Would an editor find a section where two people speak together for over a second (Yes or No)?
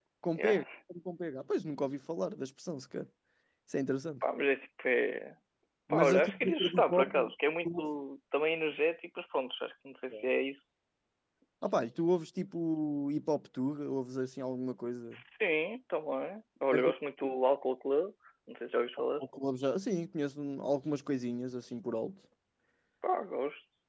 Yes